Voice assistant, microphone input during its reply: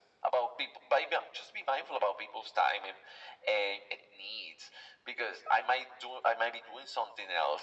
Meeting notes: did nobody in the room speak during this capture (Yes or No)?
Yes